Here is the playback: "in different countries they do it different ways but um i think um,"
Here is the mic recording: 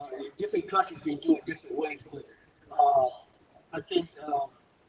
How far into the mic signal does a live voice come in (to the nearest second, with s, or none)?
none